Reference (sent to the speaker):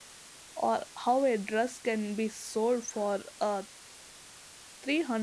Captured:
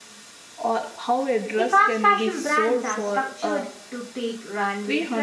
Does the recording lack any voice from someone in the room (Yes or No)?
No